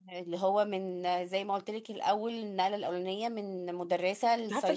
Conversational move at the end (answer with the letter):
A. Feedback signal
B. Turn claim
B